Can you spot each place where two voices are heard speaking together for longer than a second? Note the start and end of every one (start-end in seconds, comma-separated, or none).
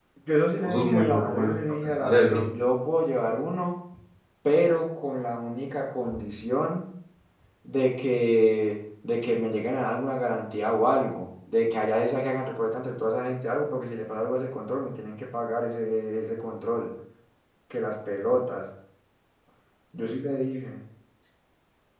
0.6-2.5